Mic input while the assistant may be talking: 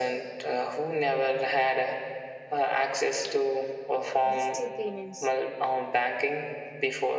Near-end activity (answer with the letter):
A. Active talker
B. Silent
A